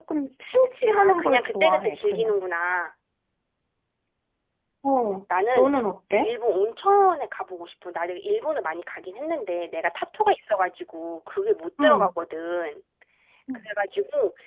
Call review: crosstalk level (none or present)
present